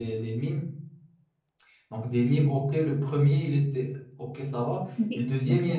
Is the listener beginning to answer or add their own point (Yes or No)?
No